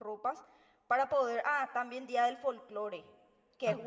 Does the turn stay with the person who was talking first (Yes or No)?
Yes